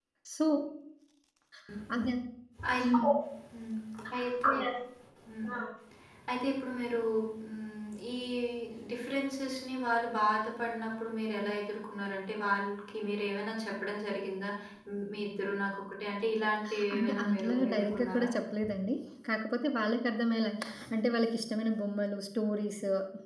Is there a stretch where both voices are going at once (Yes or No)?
Yes